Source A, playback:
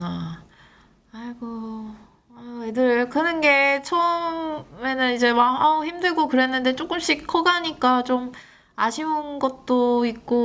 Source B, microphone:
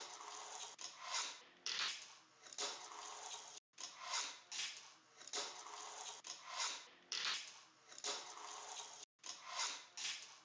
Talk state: neither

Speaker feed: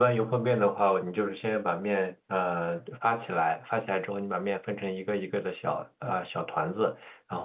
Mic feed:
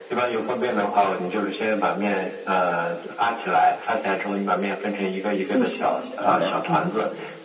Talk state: both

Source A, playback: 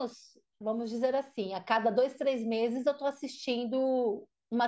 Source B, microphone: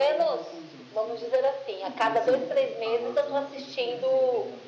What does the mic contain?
both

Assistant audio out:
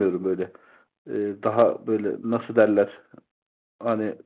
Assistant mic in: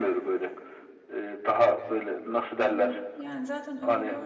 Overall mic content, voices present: both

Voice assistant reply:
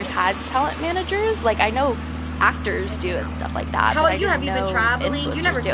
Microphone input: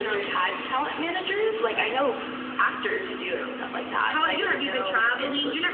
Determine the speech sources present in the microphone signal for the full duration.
echo only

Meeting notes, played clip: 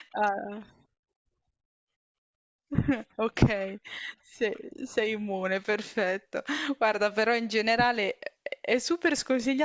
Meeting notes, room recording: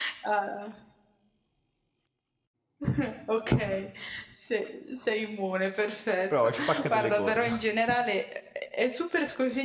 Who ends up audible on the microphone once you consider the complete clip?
both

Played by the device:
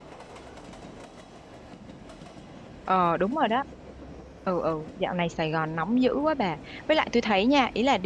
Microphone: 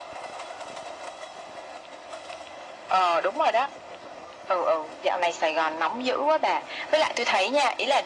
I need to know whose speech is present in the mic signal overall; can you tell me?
echo only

